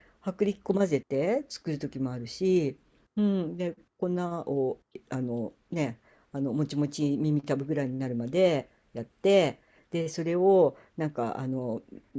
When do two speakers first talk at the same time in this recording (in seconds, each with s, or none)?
none